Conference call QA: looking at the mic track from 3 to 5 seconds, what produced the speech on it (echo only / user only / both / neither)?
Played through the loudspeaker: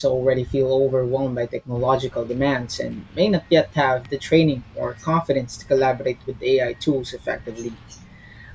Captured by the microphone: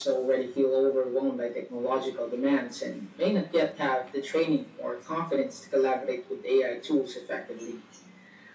echo only